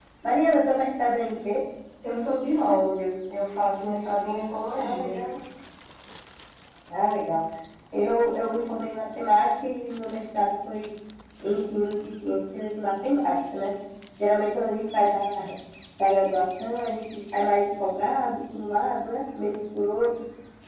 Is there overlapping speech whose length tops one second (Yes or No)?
No